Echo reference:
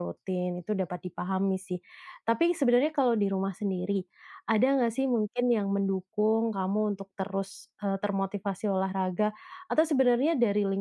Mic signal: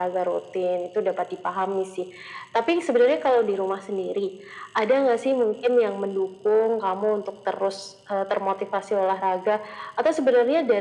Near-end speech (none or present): none